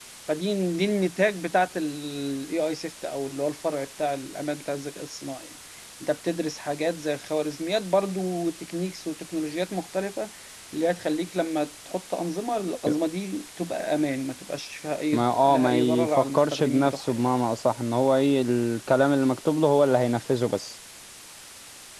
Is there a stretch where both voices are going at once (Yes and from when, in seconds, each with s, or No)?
Yes, from 15.1 s